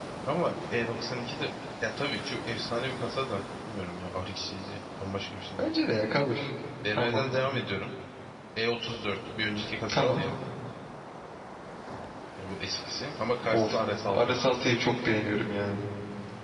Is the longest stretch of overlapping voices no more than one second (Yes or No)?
Yes